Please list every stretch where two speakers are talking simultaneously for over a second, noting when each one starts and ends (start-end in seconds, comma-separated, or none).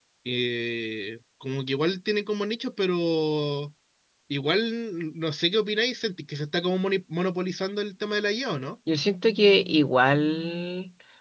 none